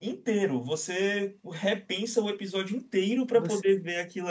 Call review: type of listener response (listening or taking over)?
listening